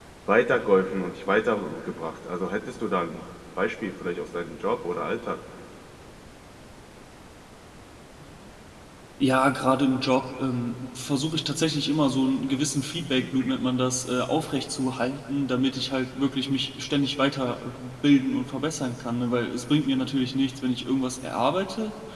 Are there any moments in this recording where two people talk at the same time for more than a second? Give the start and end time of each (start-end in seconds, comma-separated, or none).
none